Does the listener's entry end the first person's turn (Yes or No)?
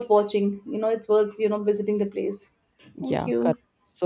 Yes